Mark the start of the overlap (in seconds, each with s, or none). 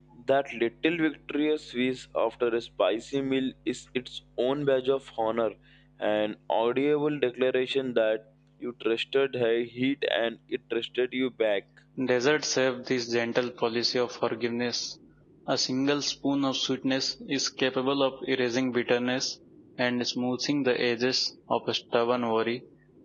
none